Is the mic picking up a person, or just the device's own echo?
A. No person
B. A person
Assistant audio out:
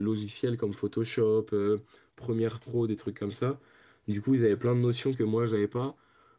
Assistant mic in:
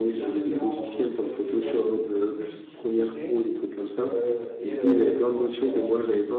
B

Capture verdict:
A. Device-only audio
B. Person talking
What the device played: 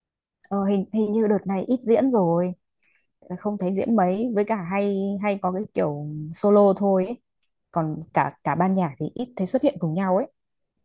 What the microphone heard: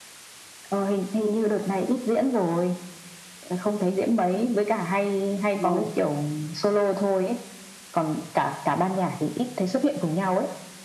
B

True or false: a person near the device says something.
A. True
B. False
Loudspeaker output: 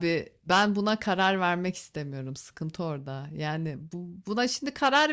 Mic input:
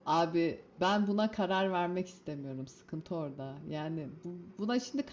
B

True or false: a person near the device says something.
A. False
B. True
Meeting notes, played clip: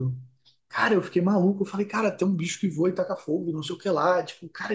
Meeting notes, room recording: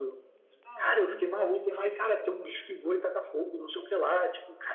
B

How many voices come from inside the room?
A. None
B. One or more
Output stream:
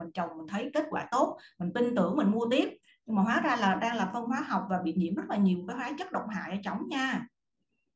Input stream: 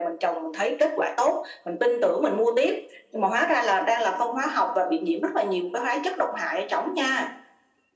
A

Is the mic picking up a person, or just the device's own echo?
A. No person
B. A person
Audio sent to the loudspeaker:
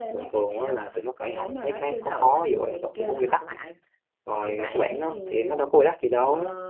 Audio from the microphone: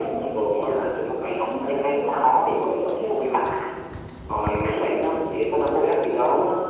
A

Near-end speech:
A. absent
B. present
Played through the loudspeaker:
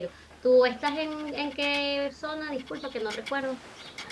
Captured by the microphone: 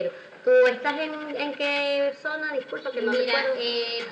B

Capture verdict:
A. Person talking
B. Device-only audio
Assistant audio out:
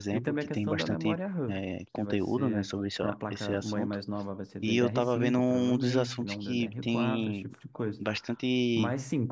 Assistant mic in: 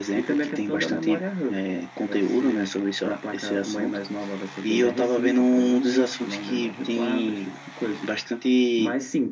B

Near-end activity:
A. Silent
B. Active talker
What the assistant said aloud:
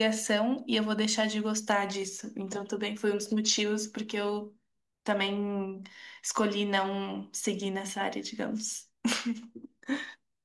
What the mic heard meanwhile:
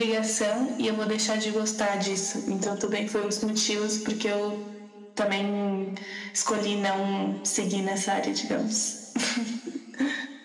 A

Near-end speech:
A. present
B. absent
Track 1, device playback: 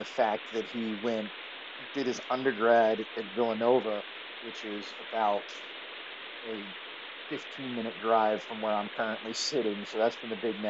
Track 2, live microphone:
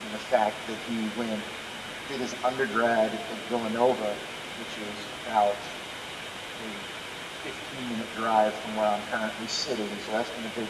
B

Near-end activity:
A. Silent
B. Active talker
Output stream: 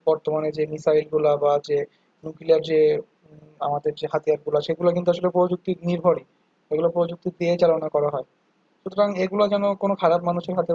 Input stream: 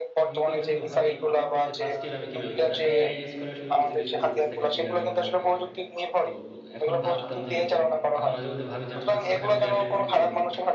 B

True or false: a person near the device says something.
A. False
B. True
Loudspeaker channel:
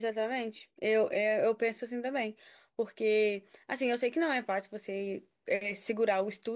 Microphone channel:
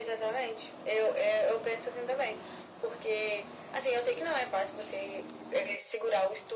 A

